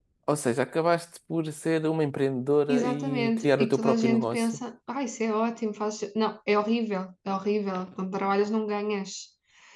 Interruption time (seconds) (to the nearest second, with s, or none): 3 s